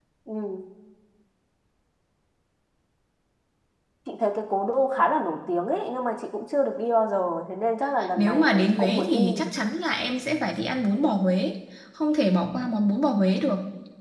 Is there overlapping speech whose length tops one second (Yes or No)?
Yes